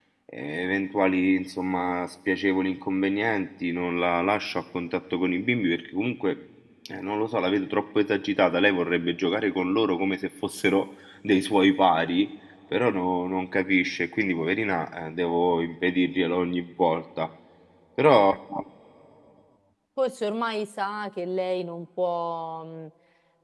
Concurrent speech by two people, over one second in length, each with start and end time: none

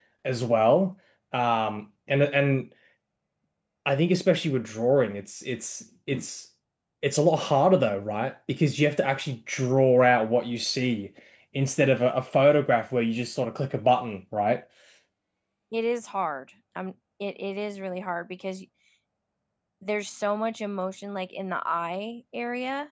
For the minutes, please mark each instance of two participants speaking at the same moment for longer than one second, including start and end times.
none

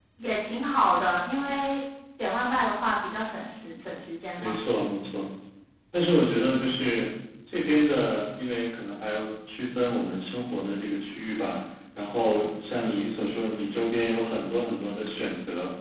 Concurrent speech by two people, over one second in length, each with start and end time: none

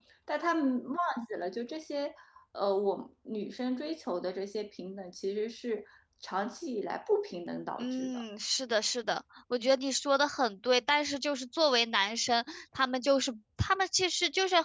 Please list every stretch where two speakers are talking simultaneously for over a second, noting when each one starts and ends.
none

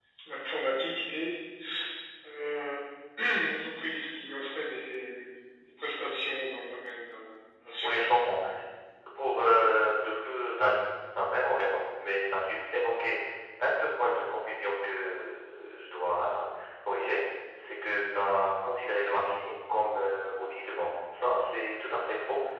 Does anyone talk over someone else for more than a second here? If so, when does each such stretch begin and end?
none

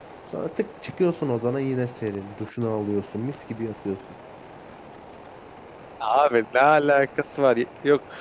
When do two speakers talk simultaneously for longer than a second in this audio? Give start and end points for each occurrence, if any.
none

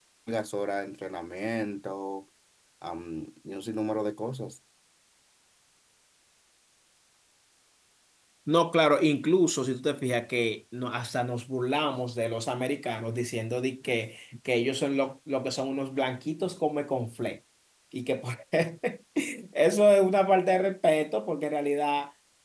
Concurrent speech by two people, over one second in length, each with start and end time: none

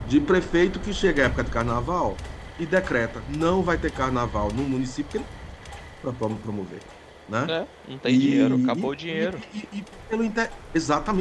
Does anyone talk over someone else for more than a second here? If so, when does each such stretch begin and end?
8.0-9.4

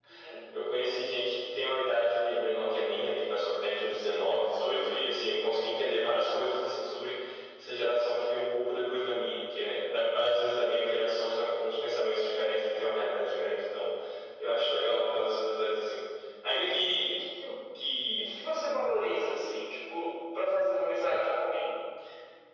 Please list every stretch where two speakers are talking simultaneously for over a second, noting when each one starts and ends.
none

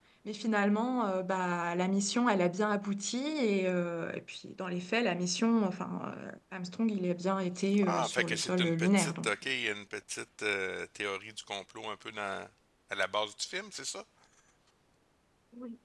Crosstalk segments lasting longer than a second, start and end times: 7.8-9.3

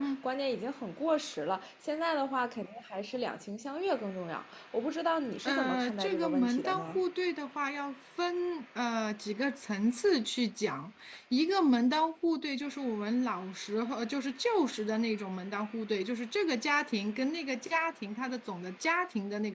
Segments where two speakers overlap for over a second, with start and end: 5.5-7.0

